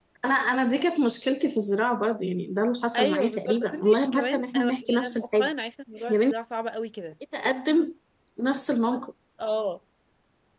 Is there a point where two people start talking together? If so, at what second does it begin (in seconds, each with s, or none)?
2.9 s